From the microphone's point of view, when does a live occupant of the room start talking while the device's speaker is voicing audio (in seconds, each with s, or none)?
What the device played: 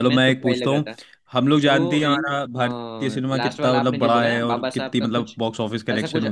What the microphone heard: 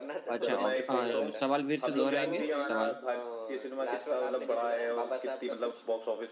0.3 s